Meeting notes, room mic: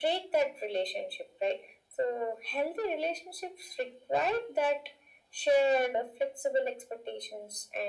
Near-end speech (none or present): none